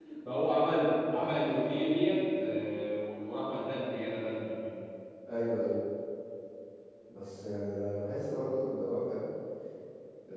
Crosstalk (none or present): none